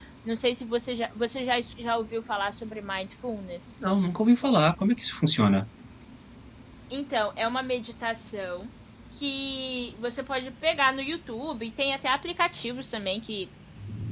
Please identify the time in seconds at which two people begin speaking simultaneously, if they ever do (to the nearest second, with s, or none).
none